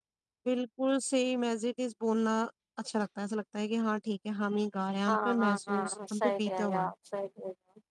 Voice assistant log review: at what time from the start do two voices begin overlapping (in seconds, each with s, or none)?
5.1 s